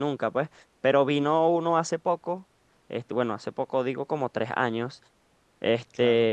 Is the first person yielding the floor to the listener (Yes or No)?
No